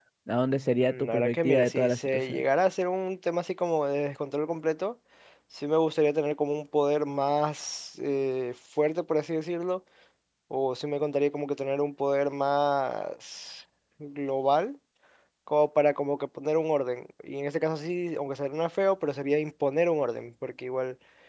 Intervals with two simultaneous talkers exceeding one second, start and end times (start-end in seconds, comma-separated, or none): 0.8-2.4